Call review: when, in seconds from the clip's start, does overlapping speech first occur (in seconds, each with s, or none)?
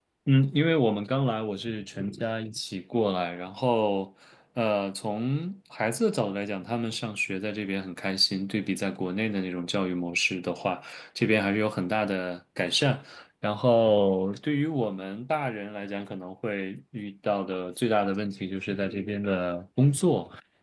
none